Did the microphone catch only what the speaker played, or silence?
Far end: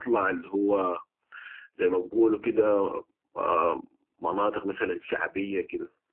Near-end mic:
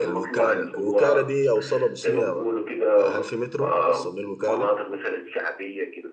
No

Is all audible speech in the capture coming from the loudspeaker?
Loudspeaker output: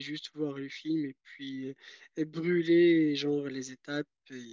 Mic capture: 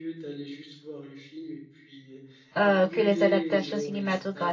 No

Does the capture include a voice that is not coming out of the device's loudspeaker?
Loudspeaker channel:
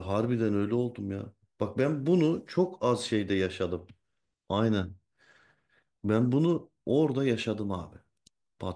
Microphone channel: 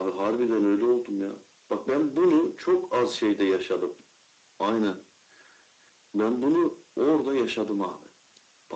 No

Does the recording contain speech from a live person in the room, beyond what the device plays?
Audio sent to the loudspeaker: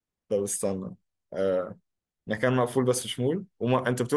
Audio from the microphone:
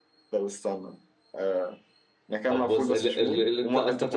Yes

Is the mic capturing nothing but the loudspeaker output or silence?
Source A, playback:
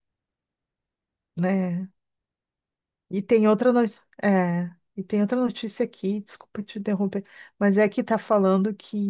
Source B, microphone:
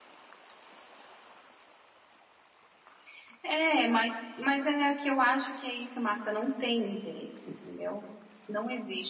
No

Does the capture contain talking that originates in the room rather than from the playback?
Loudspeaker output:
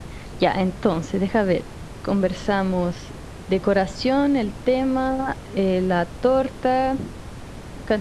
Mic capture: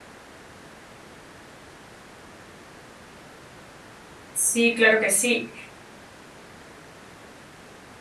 Yes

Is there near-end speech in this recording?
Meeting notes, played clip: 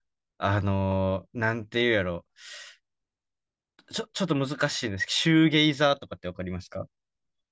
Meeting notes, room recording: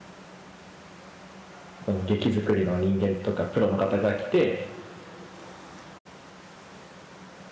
Yes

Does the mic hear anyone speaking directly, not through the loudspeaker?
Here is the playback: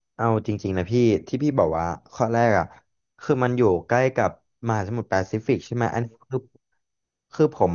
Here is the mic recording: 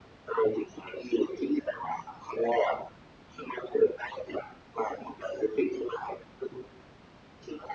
No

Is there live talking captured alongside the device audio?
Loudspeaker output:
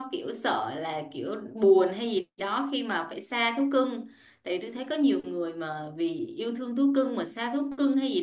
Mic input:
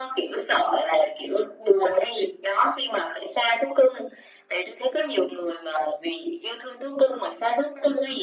No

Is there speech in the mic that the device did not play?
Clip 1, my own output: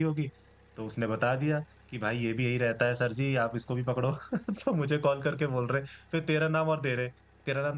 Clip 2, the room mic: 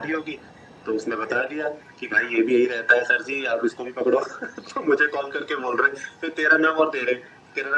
No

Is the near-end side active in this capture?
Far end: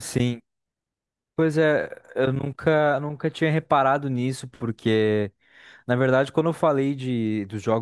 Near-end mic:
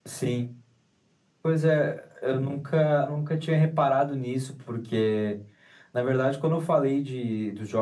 No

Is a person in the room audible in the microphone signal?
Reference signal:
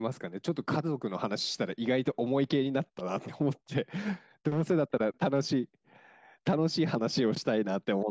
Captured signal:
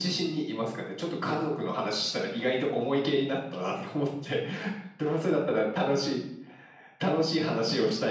No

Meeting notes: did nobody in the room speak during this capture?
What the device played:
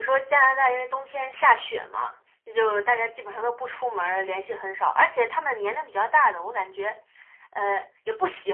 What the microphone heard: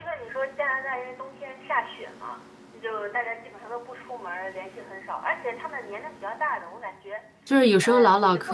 No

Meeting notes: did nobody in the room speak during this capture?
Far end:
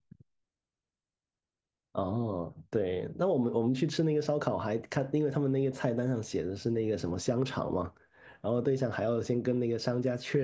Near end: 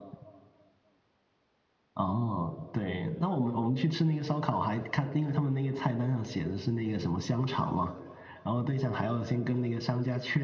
Yes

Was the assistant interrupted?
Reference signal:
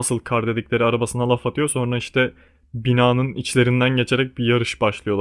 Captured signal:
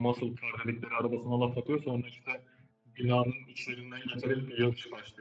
No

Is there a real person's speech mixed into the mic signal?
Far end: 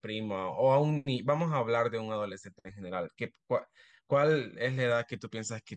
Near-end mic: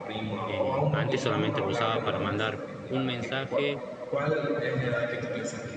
Yes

